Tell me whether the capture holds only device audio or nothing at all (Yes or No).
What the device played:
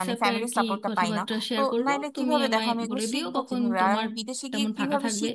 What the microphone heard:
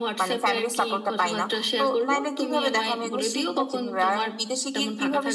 Yes